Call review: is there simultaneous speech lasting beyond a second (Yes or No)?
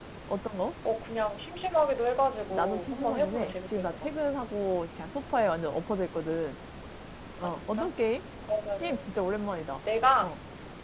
Yes